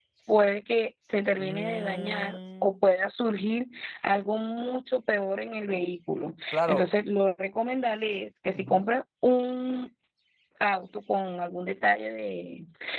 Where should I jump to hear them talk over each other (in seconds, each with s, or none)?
1.4 s